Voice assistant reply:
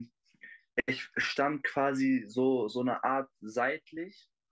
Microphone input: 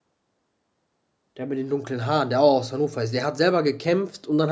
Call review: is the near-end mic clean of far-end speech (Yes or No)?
Yes